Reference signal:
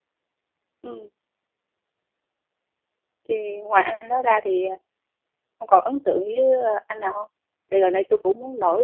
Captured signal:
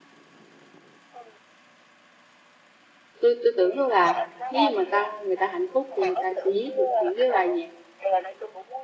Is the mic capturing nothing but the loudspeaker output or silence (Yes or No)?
No